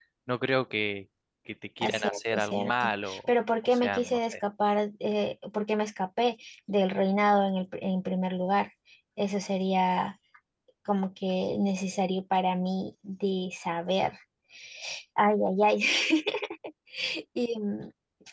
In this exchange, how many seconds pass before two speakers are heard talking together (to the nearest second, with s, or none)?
2 s